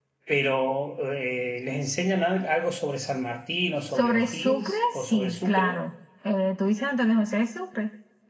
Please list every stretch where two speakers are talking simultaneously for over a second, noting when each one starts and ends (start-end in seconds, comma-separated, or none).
4.0-5.8